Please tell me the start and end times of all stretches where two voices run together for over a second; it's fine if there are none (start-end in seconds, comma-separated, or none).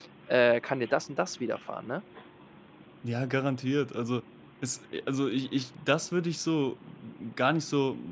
none